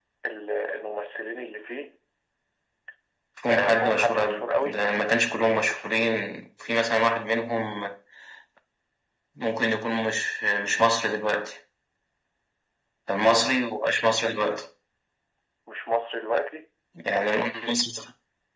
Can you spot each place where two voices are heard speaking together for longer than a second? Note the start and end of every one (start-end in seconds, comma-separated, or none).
3.5-4.8